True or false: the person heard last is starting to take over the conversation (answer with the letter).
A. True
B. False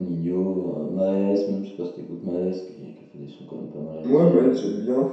A